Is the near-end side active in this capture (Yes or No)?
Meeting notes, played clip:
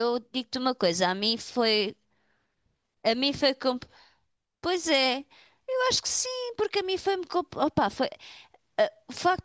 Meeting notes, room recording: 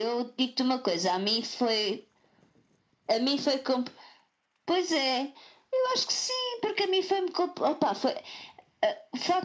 No